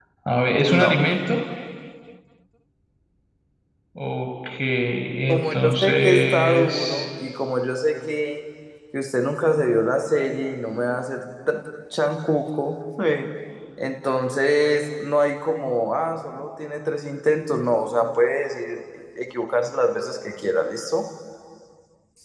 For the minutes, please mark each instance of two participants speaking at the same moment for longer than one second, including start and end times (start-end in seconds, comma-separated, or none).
5.3-7.1